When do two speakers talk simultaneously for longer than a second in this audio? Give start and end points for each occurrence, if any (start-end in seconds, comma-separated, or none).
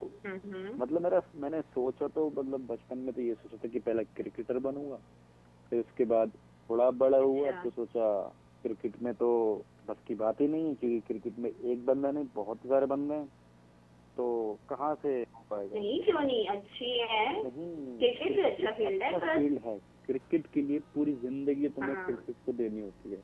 18.0-19.5